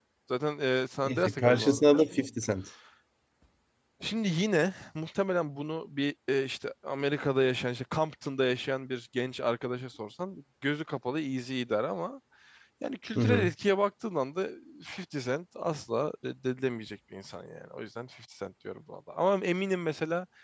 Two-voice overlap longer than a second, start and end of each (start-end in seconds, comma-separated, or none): 1.0-2.2